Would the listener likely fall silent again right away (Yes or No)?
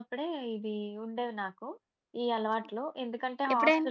Yes